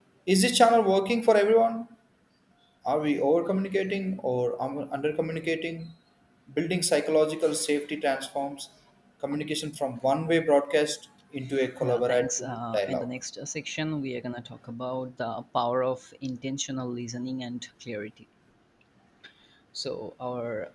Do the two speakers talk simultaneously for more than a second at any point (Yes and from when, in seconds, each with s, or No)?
Yes, from 11.8 s